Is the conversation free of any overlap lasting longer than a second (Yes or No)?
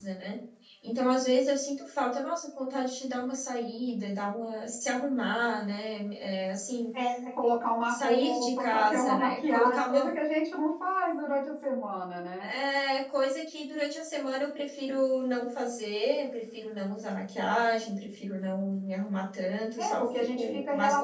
No